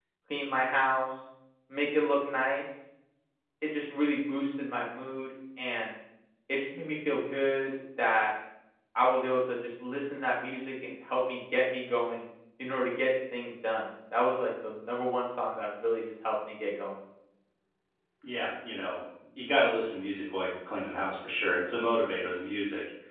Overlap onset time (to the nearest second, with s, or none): none